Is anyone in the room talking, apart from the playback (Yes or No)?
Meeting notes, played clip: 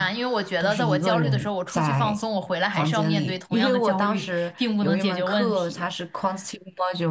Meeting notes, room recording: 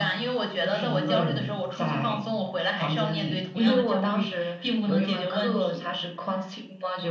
No